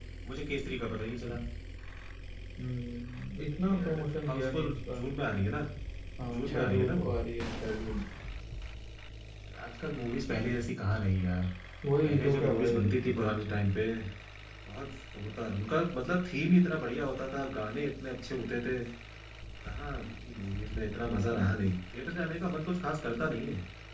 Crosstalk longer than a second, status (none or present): present